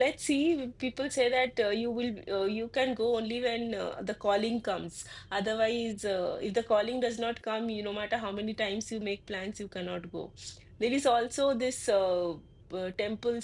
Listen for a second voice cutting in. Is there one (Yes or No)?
No